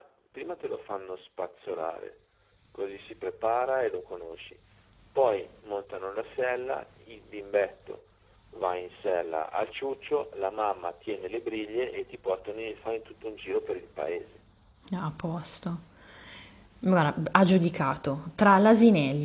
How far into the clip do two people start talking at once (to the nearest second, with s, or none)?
none